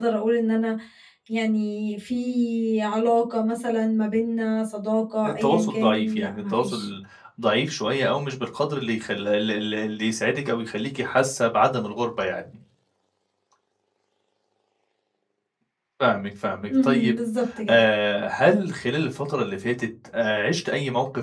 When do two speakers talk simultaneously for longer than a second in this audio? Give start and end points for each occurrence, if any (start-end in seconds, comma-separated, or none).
5.3-6.9